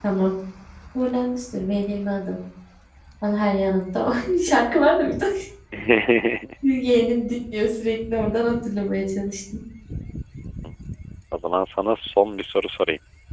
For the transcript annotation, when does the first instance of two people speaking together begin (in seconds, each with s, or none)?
none